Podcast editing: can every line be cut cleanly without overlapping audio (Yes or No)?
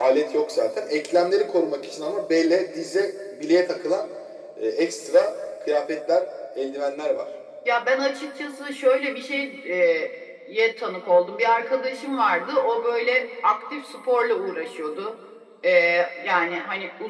Yes